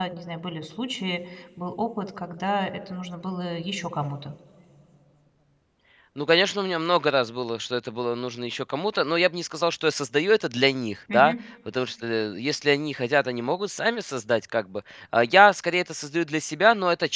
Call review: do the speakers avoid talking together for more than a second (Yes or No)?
Yes